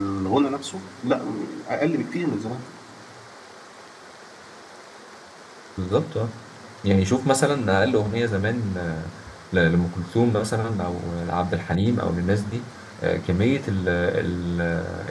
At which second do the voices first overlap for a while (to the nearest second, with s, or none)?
none